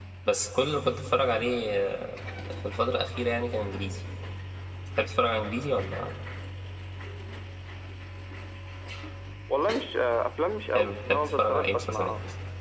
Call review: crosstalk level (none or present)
present